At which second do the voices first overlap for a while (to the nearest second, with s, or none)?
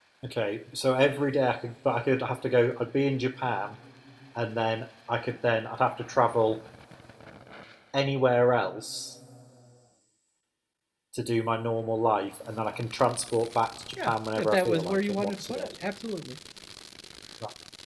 14 s